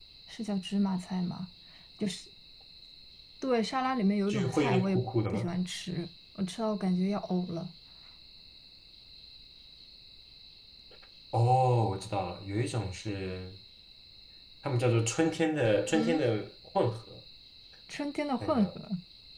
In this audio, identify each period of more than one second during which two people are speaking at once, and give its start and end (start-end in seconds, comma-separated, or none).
4.3-5.5